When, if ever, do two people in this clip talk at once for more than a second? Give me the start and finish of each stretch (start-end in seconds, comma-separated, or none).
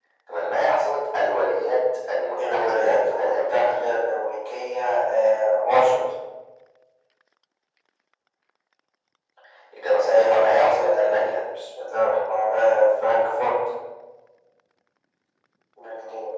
2.5-4.0, 10.0-11.4